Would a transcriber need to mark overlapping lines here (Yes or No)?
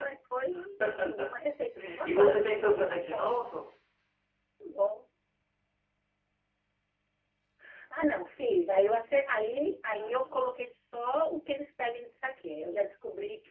Yes